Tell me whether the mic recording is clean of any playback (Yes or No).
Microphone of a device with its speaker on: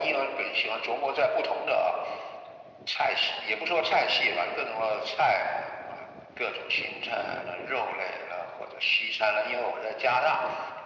No